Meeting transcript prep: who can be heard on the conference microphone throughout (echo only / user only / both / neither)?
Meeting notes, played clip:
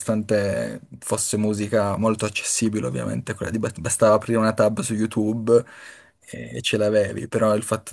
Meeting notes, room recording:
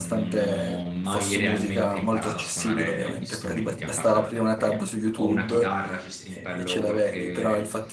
both